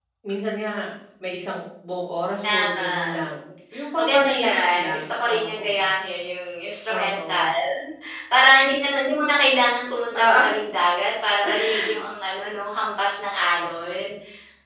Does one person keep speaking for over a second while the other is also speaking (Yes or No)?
Yes